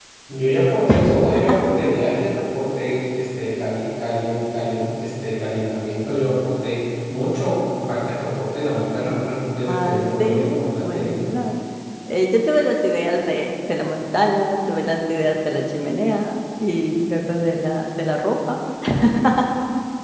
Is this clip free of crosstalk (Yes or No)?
No